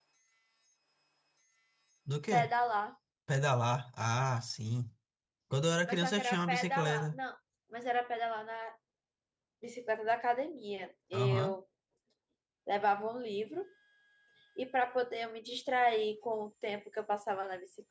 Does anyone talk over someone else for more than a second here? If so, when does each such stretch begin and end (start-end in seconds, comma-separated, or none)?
5.9-7.2